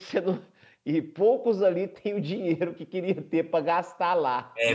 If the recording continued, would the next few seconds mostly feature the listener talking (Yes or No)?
Yes